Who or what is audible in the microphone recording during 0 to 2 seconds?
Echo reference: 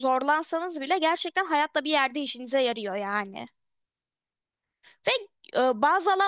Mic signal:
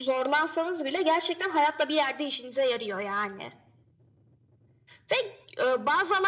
echo only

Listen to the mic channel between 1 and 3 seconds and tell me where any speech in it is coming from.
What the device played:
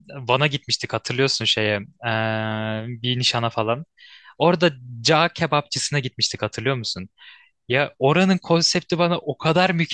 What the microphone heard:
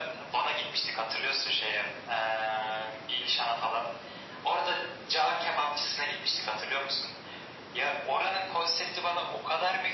echo only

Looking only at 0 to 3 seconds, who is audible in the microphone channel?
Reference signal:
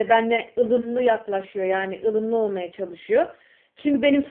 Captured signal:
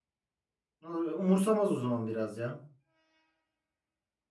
user only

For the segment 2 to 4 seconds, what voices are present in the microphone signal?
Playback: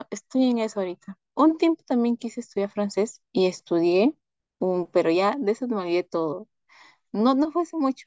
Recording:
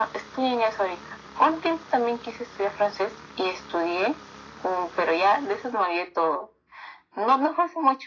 echo only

